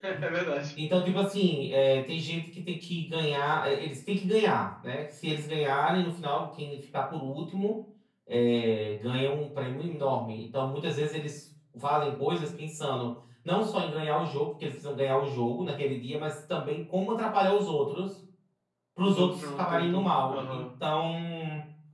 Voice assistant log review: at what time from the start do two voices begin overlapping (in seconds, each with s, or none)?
19.0 s